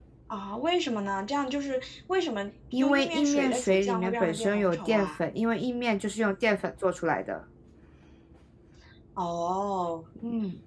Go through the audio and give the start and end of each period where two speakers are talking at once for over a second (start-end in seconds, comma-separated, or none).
2.7-5.1